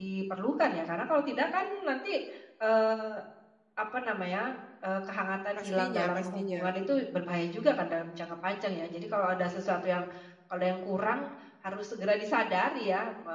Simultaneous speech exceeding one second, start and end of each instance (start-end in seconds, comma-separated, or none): 5.6-7.0